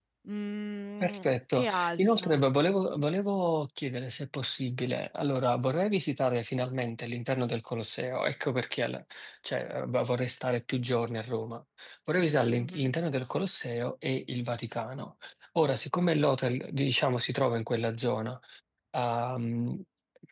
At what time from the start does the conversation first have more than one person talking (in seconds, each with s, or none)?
1.0 s